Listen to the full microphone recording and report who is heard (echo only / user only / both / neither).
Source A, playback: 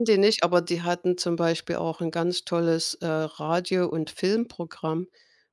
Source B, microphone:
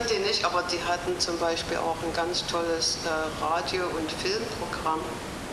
echo only